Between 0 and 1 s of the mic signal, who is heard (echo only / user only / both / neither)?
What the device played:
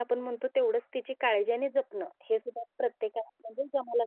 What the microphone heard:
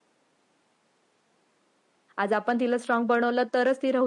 neither